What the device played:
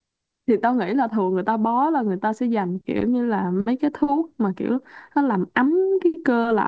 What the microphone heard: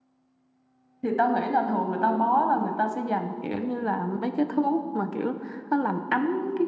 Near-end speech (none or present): none